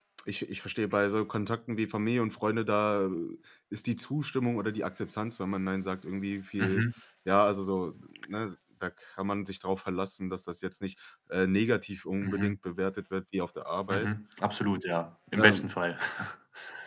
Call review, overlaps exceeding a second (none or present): none